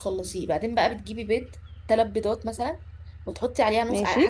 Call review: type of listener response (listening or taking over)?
listening